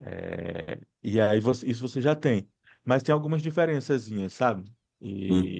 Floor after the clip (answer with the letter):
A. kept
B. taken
B